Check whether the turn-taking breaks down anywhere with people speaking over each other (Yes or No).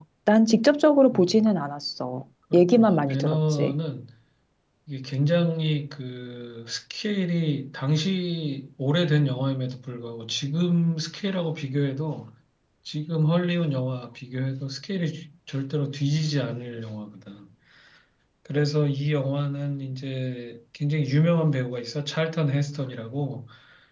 Yes